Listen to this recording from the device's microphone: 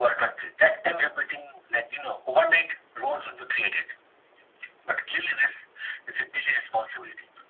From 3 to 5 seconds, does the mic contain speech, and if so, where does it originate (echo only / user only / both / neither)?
echo only